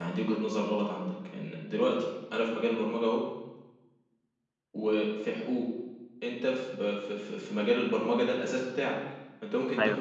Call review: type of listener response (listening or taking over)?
listening